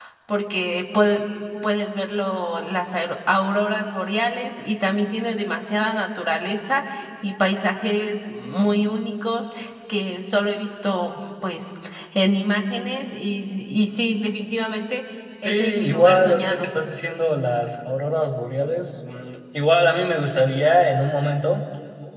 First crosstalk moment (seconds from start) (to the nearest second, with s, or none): 15 s